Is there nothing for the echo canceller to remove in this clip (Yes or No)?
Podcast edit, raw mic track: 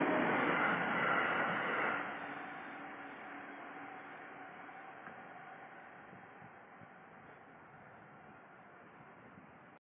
Yes